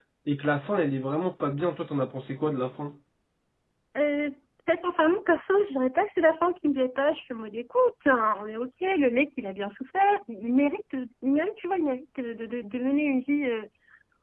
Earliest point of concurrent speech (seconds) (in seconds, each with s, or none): none